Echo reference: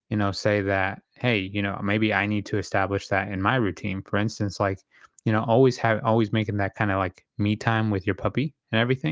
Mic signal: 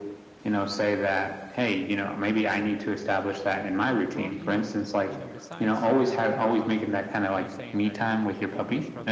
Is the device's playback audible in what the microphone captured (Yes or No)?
Yes